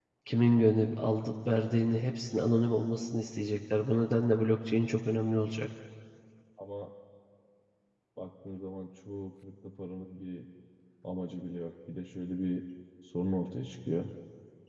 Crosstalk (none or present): none